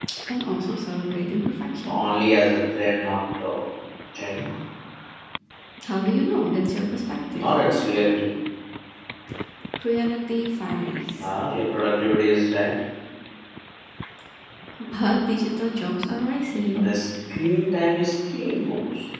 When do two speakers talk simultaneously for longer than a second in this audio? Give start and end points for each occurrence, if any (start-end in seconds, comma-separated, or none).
none